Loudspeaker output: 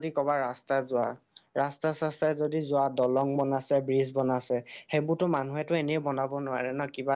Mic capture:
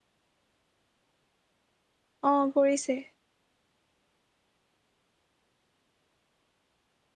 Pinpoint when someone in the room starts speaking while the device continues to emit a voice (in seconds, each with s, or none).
2.3 s